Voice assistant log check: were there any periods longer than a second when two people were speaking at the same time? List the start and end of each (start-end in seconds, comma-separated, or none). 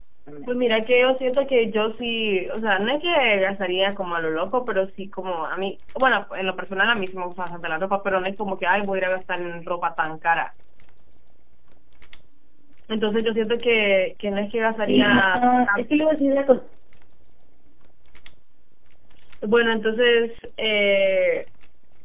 14.9-16.1